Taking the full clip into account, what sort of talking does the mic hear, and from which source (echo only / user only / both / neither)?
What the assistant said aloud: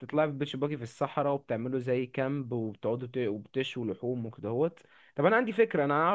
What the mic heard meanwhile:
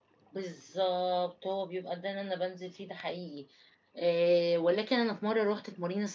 user only